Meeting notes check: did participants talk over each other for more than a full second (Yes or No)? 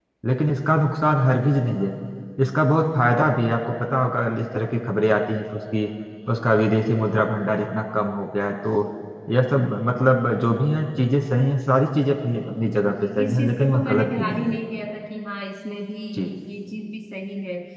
Yes